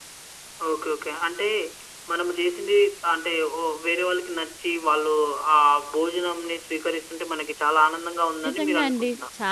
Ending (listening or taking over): taking over